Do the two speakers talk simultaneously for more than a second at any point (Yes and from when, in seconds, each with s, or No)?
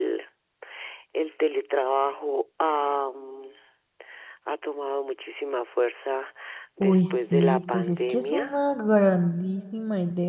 Yes, from 6.8 s